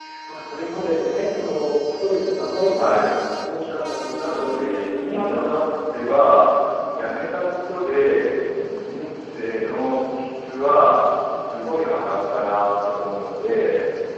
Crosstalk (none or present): present